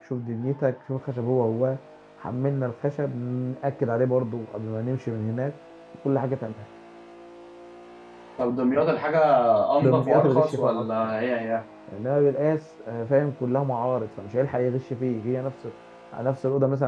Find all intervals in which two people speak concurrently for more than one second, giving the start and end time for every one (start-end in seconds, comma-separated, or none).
9.8-11.1